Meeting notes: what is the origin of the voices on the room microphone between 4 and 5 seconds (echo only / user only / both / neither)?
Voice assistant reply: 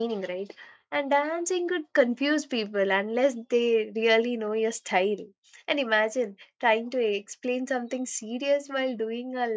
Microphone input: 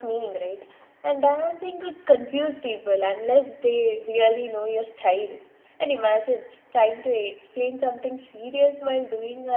echo only